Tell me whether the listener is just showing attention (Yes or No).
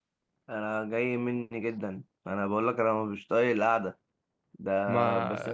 Yes